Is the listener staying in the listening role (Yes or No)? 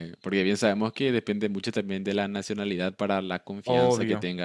Yes